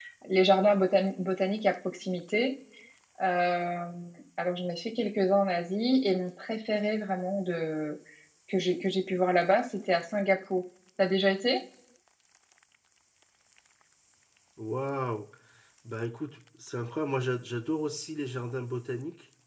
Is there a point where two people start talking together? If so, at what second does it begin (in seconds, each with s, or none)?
none